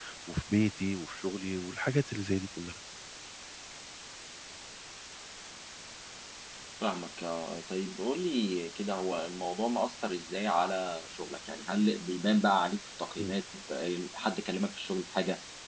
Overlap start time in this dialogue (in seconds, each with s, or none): none